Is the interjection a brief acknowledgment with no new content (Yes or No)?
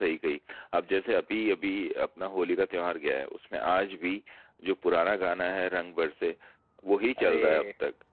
Yes